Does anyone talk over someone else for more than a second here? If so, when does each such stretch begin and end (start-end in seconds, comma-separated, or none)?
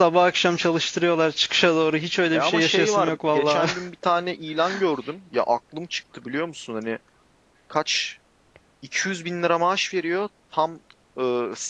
2.3-3.7